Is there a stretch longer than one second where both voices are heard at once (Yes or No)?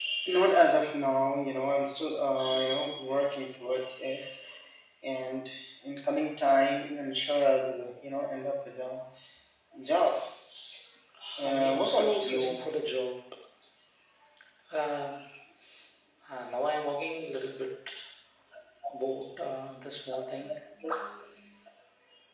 Yes